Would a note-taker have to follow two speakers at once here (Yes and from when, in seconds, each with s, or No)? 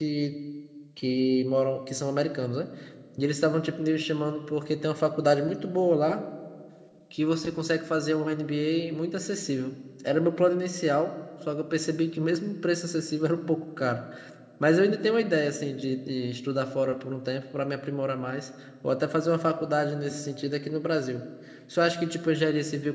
No